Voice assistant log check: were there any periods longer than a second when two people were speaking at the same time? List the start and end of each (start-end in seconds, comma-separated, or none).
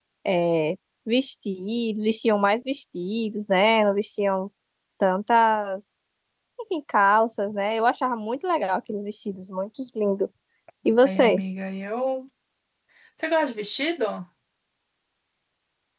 none